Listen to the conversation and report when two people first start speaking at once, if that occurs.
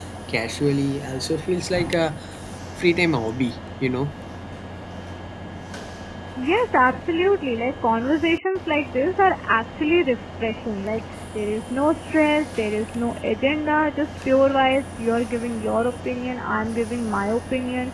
none

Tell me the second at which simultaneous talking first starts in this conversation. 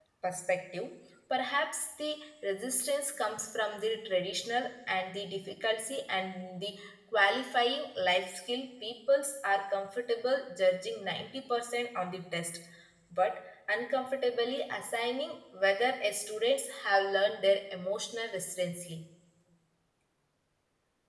none

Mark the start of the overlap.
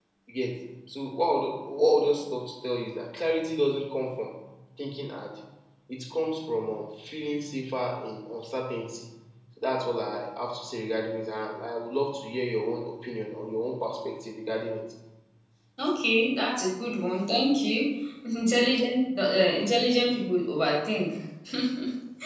none

